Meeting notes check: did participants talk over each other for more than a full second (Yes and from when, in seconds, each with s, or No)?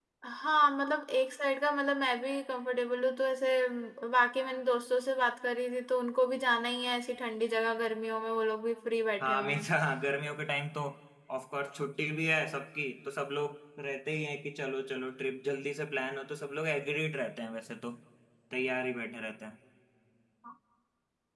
No